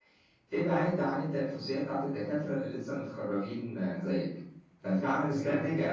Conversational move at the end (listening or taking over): listening